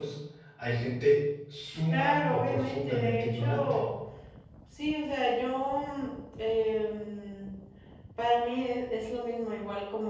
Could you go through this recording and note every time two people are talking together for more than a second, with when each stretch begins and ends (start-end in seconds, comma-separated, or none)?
1.9-3.8